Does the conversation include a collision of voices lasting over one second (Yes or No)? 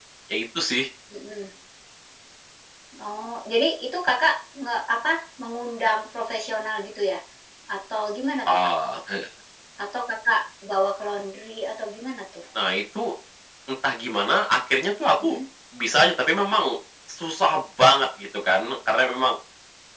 No